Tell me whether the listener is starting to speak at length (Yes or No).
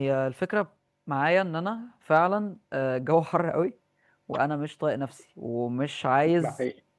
No